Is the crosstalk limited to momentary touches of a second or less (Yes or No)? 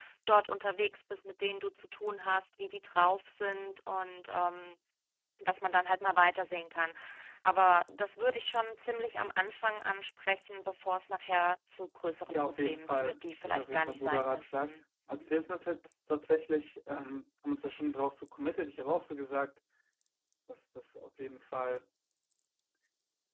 No